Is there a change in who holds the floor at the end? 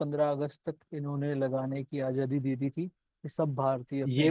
No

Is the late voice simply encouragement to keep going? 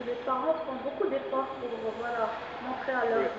Yes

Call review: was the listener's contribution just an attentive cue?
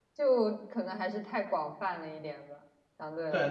No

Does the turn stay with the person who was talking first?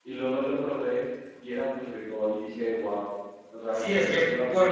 No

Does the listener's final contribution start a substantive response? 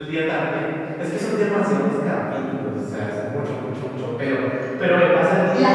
Yes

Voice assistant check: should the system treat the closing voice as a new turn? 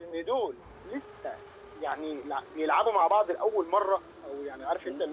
No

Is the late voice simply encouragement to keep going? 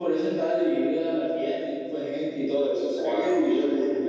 No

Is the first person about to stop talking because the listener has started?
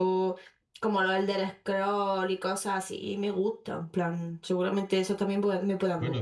Yes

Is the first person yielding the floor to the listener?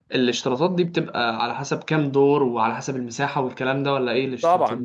Yes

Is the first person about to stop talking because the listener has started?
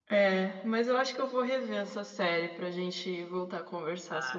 Yes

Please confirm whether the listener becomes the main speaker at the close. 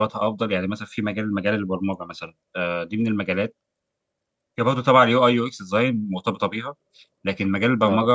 No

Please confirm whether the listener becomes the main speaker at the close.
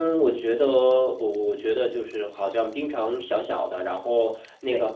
No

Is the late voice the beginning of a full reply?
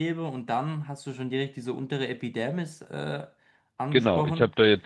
Yes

